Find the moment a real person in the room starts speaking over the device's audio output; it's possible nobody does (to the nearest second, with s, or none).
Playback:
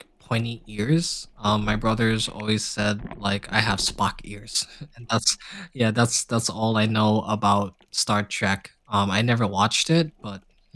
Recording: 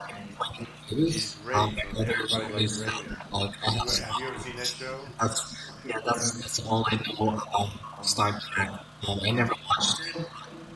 1 s